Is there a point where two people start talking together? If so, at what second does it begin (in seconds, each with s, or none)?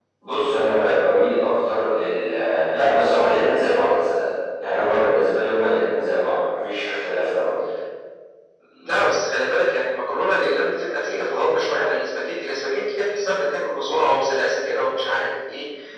none